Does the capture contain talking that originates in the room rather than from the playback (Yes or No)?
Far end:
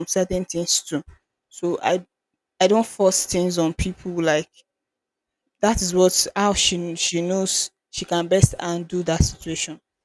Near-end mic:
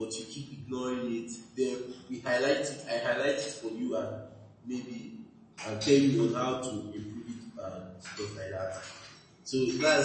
Yes